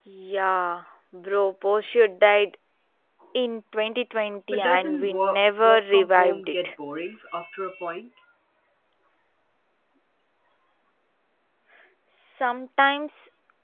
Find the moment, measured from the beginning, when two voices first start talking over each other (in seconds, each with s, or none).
4.5 s